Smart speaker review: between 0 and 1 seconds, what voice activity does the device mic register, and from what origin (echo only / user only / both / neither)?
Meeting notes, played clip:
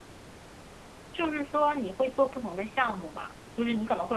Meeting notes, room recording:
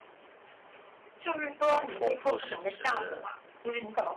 neither